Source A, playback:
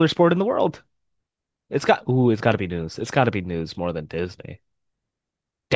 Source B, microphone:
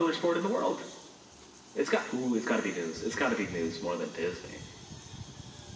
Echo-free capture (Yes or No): No